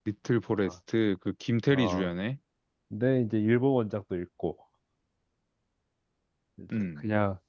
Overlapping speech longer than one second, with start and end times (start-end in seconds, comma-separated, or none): none